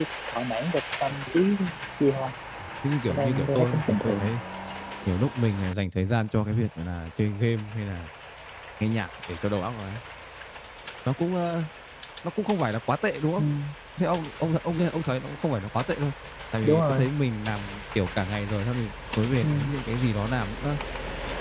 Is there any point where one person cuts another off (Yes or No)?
Yes